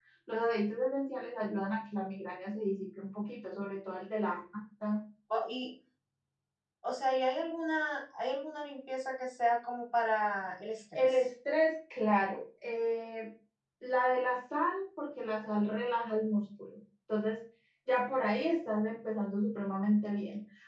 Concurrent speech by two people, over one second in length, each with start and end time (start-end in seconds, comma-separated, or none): none